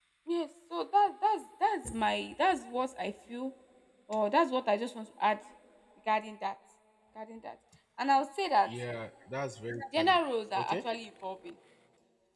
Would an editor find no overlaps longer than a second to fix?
Yes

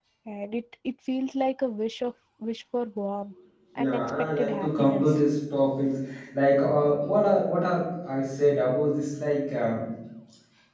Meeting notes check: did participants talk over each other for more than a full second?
Yes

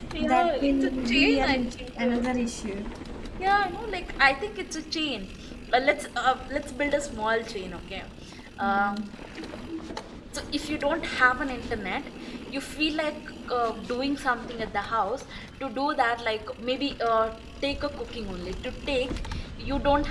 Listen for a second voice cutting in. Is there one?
Yes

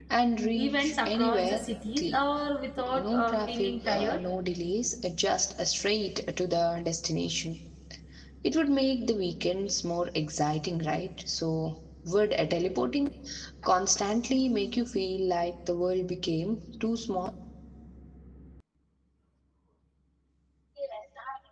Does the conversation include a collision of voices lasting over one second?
Yes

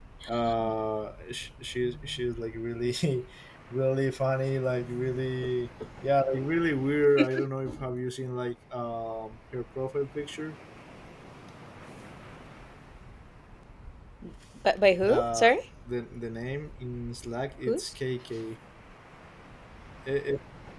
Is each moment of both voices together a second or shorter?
Yes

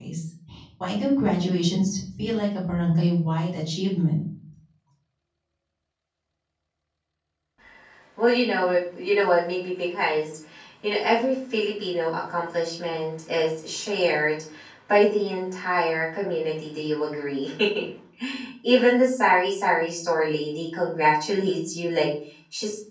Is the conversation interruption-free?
Yes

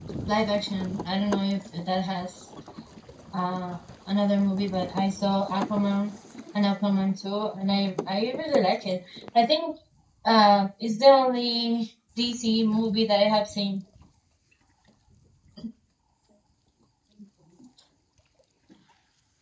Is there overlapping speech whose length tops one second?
No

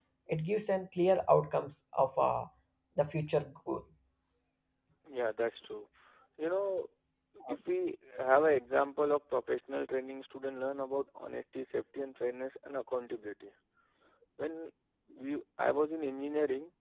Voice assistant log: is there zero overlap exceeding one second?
Yes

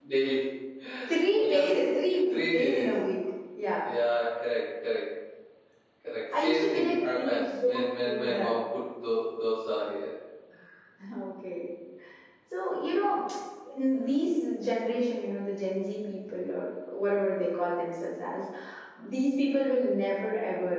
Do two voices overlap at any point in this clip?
Yes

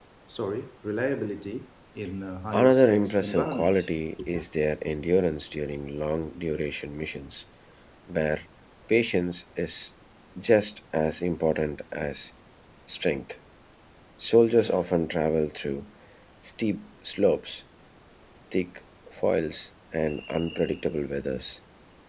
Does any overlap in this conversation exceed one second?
Yes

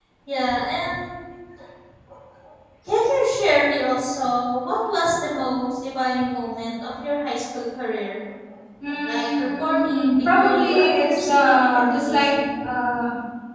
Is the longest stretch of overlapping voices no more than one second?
No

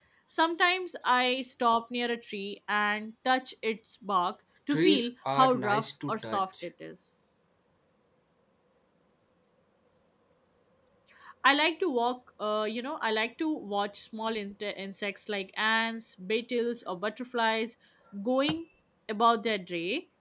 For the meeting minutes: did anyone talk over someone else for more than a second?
Yes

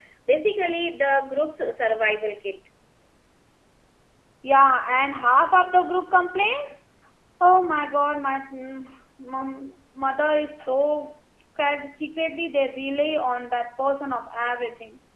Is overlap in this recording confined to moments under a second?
Yes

